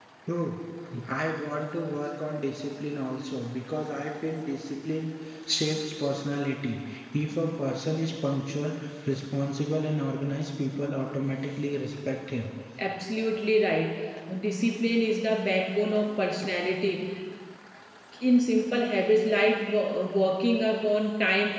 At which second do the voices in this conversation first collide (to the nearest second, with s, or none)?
none